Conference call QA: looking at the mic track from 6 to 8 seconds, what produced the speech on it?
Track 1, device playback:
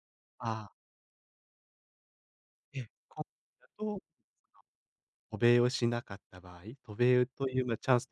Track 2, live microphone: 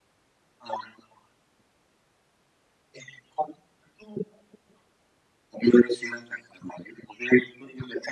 echo only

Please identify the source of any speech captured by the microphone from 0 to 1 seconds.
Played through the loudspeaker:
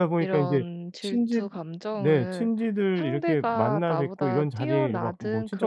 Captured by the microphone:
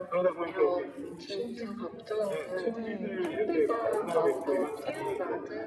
echo only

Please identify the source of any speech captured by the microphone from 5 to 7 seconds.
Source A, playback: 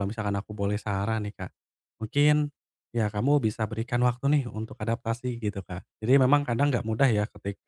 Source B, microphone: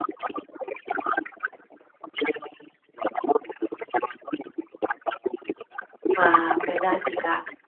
both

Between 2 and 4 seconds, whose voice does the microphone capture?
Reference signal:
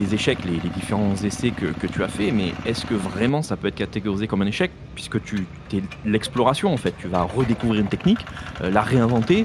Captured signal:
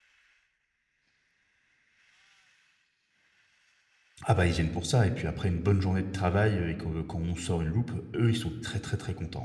neither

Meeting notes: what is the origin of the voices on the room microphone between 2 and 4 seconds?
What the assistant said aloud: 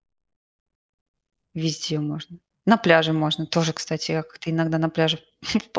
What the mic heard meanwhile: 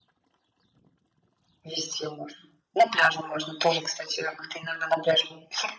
echo only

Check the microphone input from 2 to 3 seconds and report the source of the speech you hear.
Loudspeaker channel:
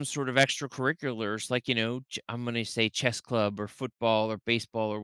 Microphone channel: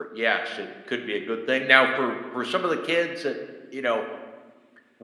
user only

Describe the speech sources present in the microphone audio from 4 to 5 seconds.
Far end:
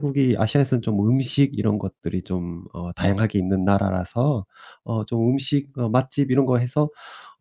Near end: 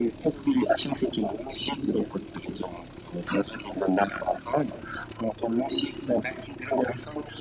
echo only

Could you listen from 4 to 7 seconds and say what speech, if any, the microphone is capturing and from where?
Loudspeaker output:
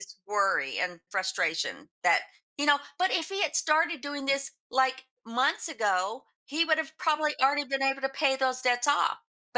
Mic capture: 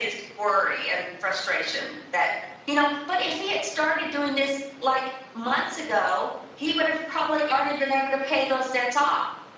echo only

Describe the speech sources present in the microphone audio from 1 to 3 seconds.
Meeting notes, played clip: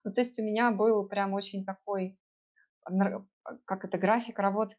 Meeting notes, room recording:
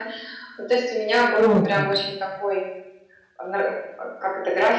both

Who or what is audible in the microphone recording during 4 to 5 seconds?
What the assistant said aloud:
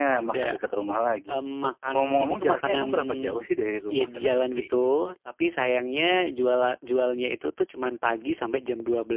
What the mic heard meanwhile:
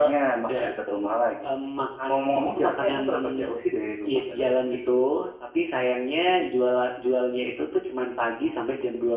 echo only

